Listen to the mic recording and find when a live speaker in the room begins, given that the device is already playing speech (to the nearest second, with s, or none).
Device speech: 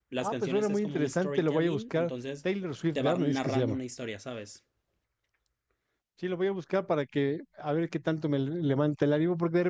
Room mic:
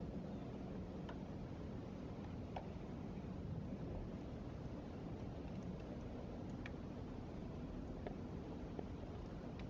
none